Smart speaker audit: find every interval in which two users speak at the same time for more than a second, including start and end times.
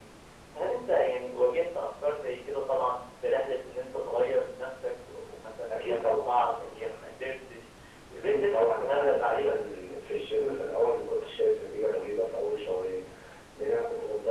8.3-9.6

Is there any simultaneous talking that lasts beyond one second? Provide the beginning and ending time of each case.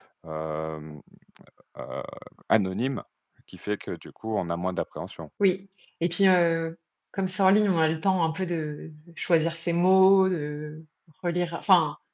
none

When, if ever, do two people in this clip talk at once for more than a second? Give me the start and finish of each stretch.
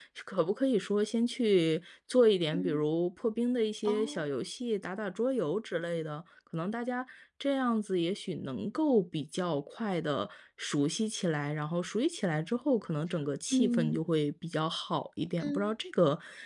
none

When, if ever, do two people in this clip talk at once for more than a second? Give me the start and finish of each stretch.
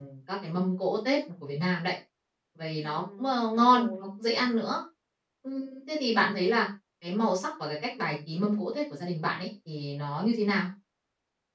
2.8-4.1

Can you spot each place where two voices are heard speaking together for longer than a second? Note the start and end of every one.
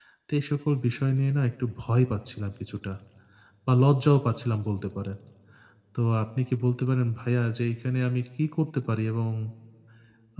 none

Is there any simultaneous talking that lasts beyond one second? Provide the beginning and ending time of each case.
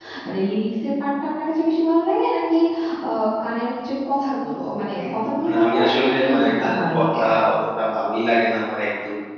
5.5-7.2

